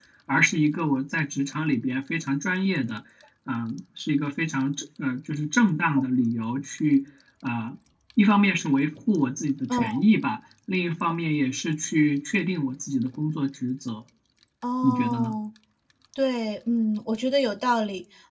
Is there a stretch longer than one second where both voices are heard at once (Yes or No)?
No